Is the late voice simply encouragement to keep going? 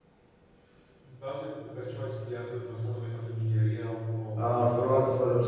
No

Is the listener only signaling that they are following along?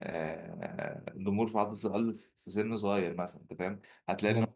Yes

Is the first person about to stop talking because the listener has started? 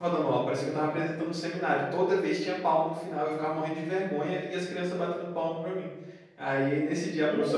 No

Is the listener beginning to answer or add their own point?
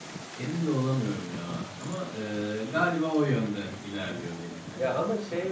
Yes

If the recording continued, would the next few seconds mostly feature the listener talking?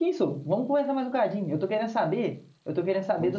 No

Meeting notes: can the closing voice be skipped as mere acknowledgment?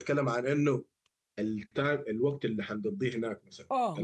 No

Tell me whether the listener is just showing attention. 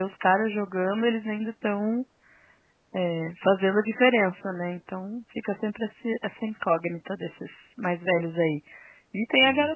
Yes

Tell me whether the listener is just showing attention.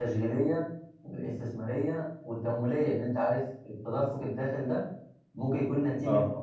Yes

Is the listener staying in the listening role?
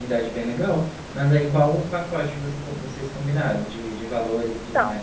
No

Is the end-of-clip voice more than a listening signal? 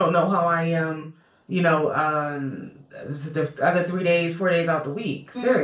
Yes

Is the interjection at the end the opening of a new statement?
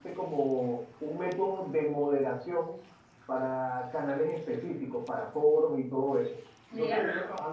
No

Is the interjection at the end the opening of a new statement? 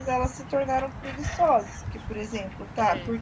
No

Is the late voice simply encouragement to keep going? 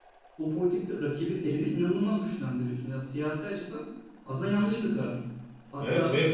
No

